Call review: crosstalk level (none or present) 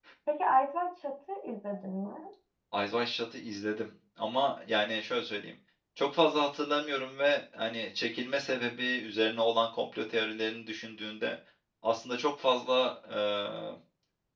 none